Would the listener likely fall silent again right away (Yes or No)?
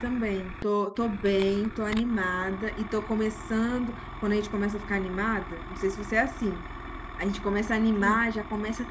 Yes